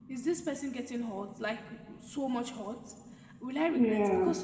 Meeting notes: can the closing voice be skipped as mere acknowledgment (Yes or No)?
Yes